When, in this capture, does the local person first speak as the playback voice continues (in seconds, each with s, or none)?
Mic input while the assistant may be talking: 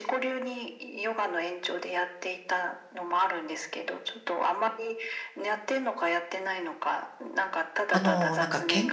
7.9 s